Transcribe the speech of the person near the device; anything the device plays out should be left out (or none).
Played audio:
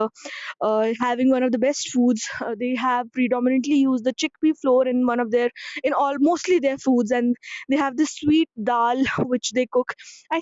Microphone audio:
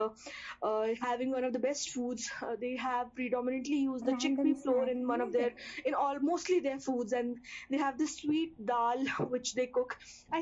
random snacking like that